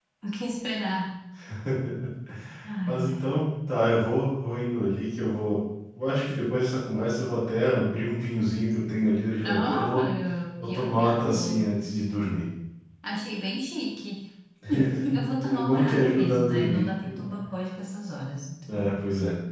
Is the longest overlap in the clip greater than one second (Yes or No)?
Yes